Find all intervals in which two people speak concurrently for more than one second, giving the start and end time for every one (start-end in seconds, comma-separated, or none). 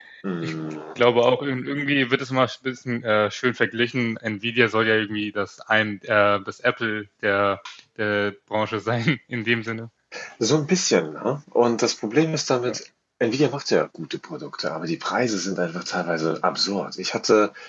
none